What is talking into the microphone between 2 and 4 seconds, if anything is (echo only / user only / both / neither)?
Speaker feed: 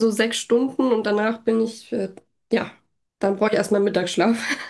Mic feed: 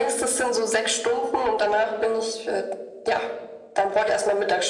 echo only